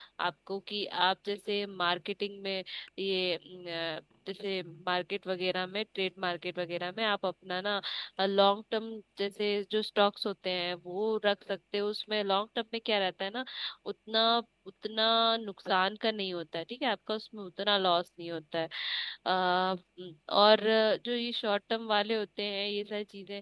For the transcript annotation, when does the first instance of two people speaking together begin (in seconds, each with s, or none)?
none